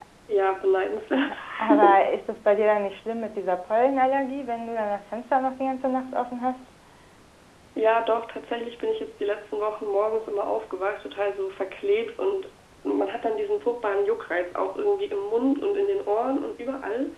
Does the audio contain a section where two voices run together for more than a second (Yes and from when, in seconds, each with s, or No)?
No